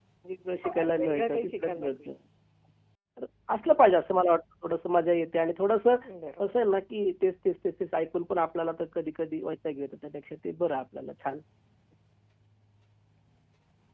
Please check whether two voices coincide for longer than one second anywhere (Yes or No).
Yes